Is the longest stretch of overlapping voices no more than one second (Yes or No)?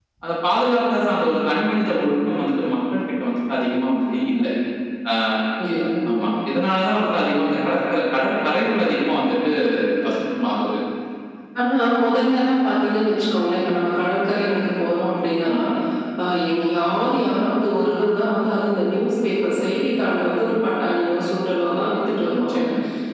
Yes